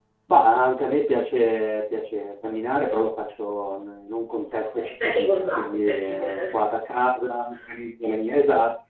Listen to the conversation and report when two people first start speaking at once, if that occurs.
4.6 s

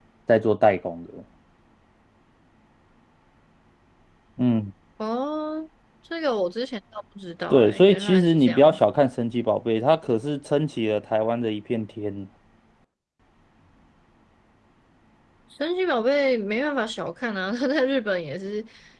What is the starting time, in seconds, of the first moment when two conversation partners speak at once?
7.5 s

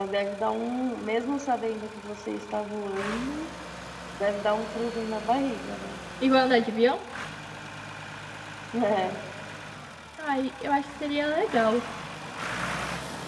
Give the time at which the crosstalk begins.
none

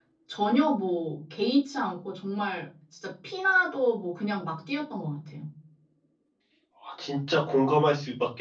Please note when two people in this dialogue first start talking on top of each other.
none

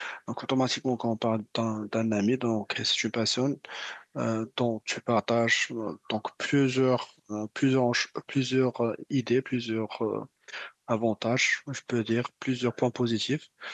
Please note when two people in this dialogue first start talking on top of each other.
none

